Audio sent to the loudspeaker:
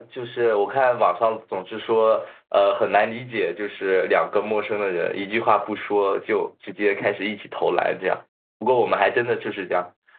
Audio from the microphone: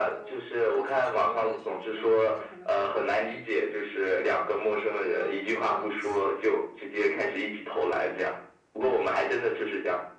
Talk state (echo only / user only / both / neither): both